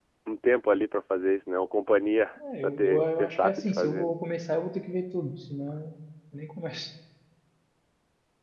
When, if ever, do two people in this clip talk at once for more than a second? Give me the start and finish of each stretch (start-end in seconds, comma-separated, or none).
2.6-4.1